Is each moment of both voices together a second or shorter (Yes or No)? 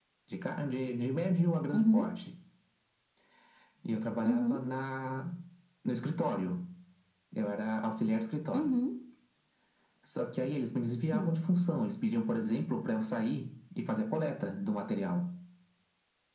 Yes